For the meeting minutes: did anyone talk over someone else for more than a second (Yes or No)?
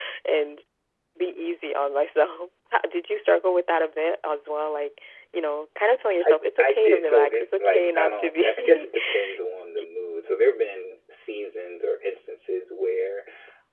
Yes